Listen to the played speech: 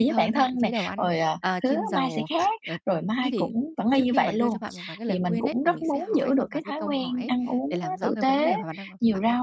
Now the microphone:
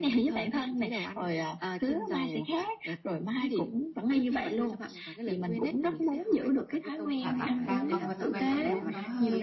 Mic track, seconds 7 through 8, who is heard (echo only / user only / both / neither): both